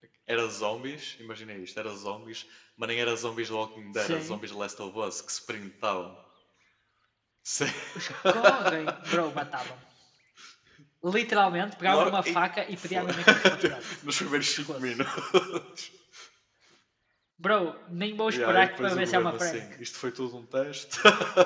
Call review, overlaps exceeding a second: present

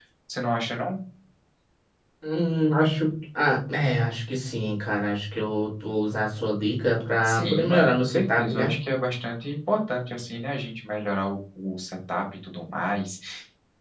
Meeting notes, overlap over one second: present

